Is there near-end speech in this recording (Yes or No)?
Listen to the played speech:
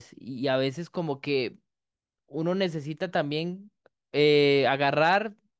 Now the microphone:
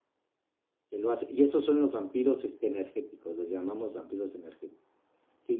Yes